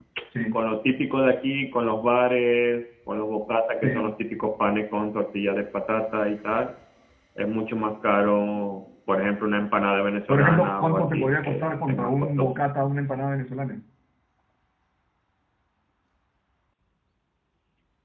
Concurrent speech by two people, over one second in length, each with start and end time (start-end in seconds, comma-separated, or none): 10.3-12.5